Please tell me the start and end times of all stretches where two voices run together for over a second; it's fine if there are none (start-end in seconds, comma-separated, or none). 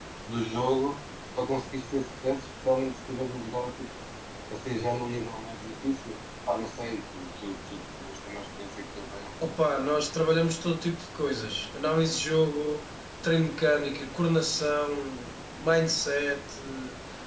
none